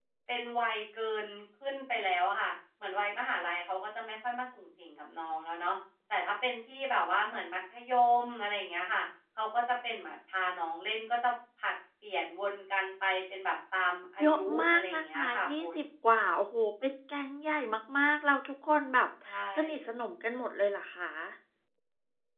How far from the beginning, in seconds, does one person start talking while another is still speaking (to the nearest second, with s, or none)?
14 s